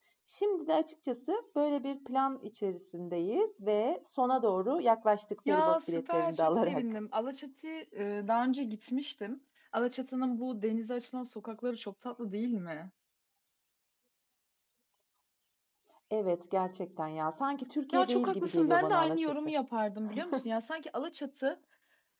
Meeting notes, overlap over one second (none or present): present